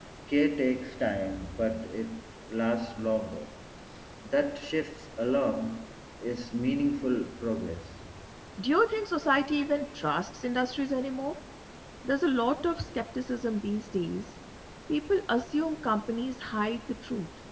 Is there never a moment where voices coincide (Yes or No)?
Yes